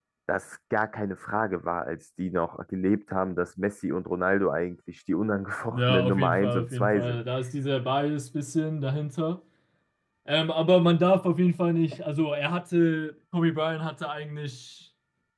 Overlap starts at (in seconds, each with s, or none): 5.7 s